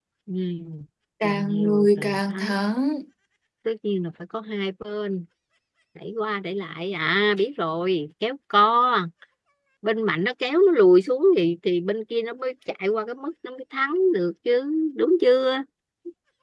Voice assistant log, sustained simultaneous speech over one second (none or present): present